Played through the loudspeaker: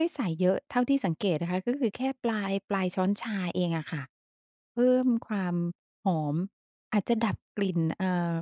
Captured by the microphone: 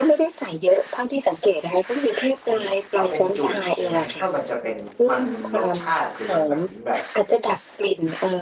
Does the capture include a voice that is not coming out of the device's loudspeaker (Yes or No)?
Yes